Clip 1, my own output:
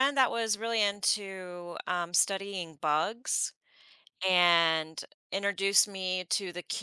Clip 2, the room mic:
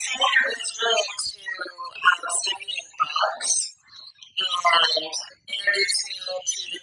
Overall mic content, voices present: echo only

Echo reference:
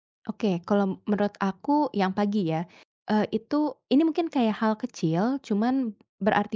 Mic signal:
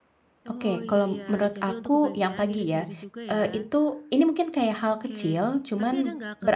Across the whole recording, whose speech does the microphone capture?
both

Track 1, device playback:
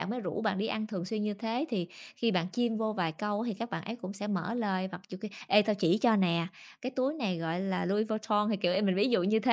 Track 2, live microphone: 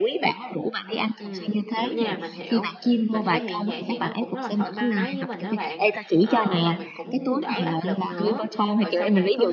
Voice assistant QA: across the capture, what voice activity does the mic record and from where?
both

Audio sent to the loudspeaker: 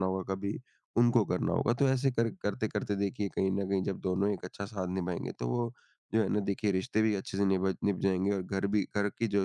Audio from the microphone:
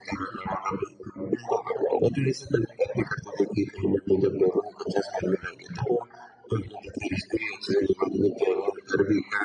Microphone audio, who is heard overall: echo only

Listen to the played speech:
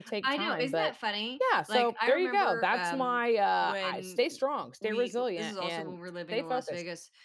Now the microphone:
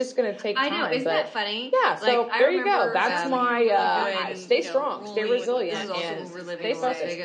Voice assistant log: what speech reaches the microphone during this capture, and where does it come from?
both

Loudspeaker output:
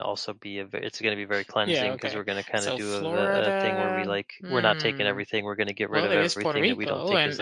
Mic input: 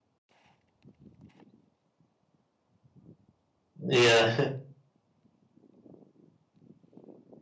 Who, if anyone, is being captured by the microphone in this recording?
user only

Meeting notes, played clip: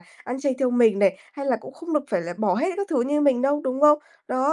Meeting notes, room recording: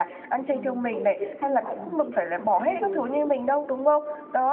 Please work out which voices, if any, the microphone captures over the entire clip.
both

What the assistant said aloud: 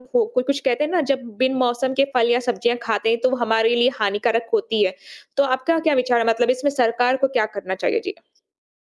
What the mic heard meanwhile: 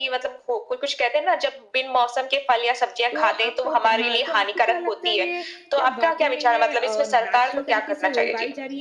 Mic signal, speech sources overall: both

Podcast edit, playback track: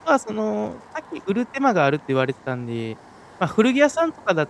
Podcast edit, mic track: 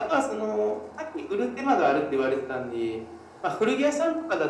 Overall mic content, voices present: echo only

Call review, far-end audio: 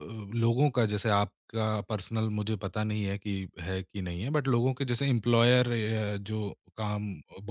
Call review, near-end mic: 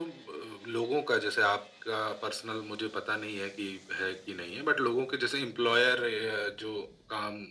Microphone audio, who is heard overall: echo only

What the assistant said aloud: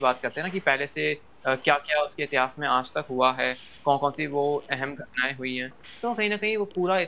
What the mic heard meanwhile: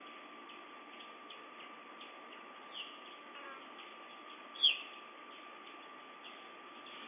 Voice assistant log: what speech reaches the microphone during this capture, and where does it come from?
neither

